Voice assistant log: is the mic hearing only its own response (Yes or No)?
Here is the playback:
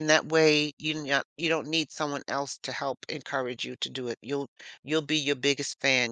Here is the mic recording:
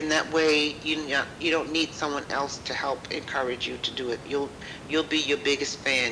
Yes